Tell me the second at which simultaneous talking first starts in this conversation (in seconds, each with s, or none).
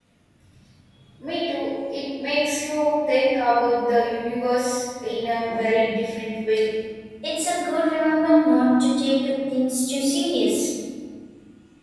none